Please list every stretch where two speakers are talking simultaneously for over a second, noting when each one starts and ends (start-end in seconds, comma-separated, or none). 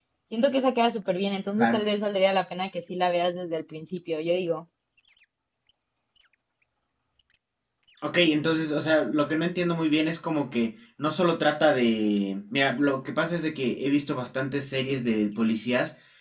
none